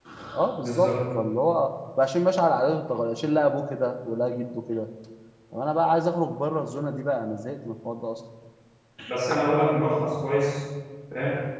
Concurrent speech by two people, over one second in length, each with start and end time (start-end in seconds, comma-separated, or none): none